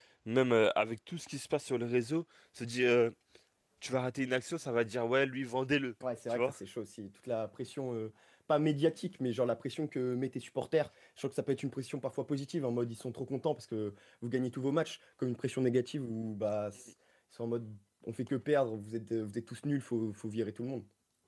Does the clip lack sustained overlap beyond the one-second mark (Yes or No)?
Yes